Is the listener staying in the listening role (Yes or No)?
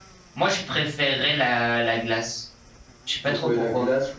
No